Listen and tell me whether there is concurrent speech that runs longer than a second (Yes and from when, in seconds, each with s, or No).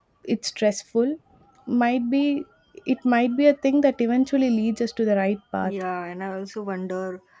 No